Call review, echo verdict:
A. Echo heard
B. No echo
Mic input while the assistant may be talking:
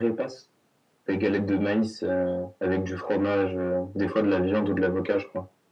A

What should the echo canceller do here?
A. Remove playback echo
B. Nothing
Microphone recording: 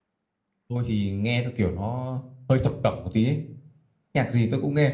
B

